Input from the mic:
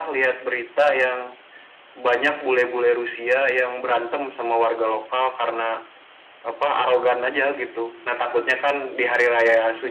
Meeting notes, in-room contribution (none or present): none